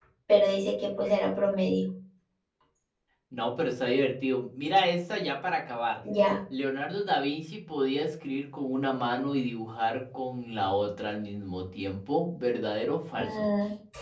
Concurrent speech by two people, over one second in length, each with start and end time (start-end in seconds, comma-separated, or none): none